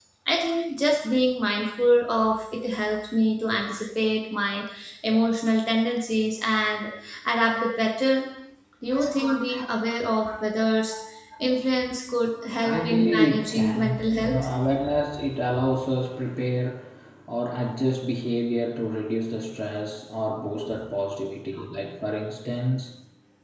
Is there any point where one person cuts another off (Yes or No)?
Yes